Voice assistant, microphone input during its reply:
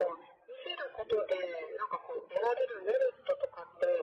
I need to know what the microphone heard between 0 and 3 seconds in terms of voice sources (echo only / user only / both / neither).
echo only